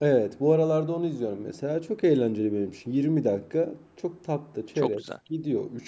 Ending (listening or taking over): listening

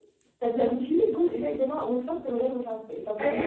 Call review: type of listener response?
listening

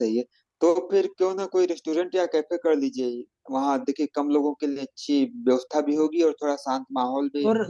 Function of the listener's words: taking over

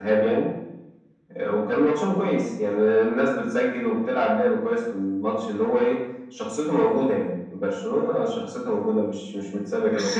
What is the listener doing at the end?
taking over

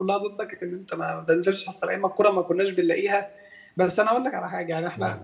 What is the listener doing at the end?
listening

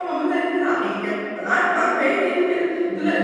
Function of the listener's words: listening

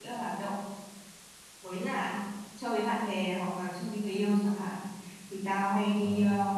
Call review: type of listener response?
listening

